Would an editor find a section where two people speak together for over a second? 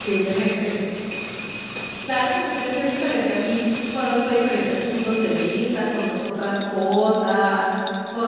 No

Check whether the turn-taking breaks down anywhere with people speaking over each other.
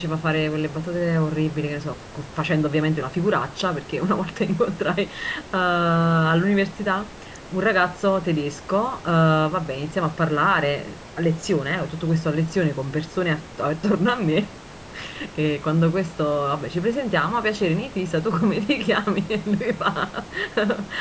No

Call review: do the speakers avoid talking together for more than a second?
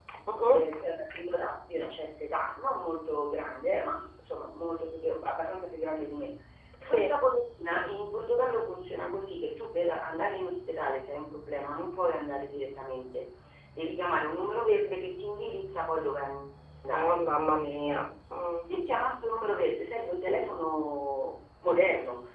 Yes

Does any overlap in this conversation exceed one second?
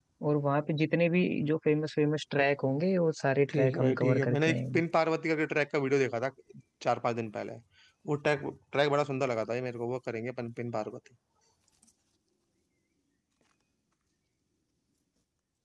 Yes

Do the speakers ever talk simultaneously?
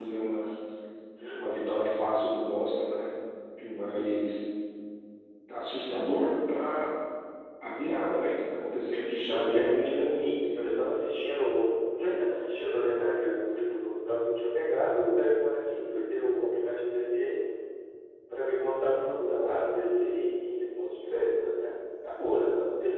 Yes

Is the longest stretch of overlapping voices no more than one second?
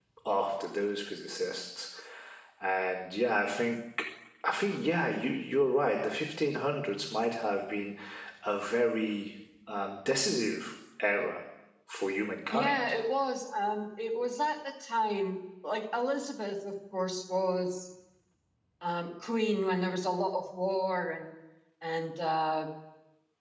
Yes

